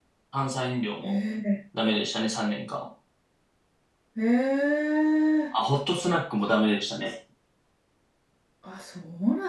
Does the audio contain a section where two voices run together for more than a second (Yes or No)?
No